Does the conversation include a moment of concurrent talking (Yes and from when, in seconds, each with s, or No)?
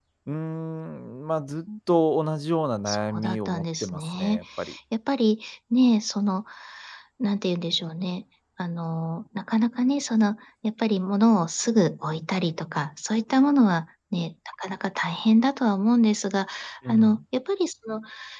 Yes, from 2.9 s